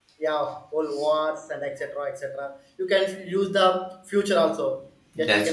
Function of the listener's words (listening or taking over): listening